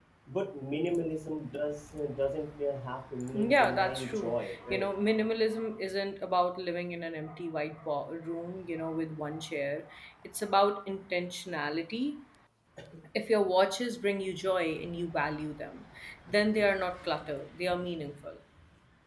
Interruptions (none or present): present